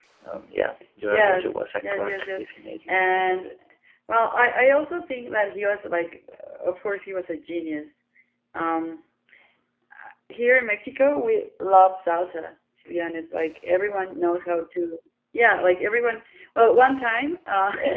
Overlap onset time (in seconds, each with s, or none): 1.1 s